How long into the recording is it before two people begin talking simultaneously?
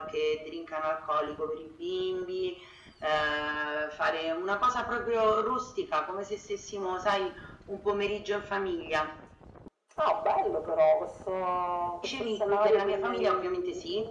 12.0 s

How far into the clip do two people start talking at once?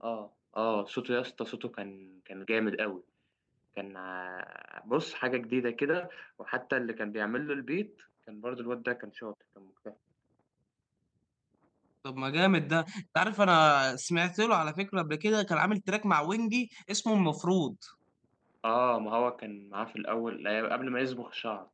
none

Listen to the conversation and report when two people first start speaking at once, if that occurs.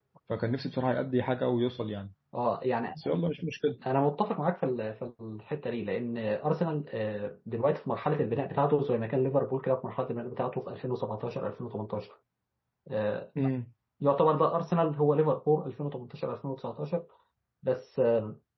none

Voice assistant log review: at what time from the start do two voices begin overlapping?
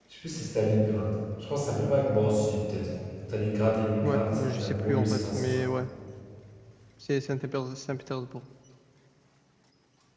4.0 s

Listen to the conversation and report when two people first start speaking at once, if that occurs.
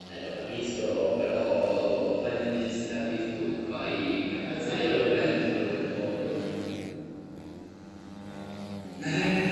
4.4 s

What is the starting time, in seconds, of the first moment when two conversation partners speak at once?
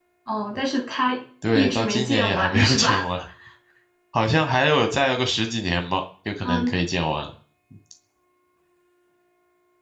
1.5 s

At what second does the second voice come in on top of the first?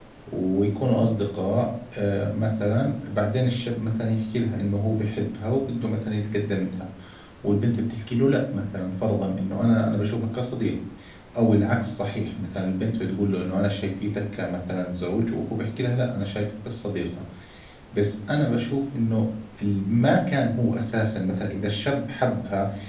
none

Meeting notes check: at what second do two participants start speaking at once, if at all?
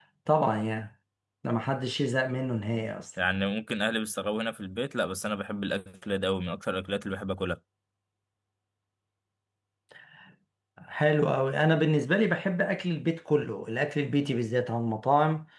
none

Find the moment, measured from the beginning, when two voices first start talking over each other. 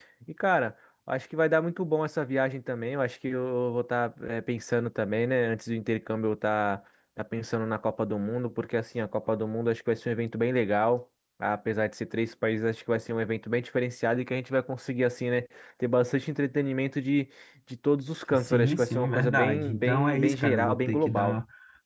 18.3 s

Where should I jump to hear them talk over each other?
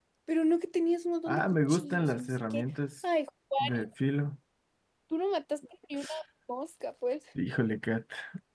1.3 s

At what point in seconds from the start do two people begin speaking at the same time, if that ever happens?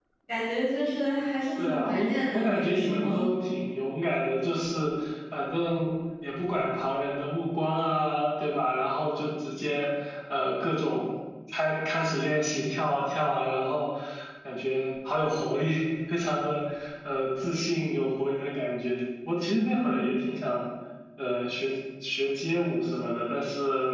1.6 s

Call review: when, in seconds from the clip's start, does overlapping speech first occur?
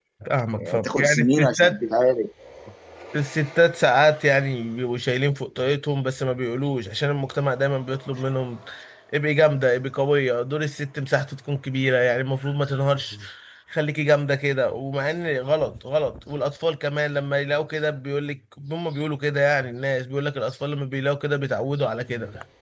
0.6 s

